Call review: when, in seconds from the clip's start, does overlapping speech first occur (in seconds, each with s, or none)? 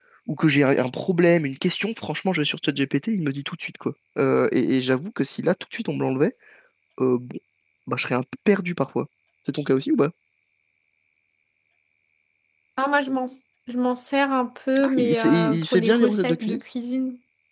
14.8 s